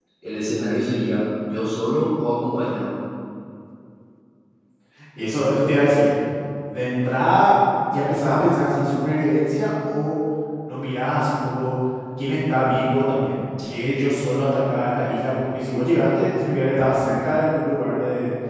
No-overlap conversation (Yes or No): Yes